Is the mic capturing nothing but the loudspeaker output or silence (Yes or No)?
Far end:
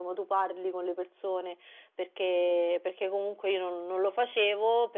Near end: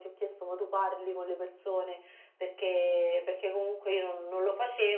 Yes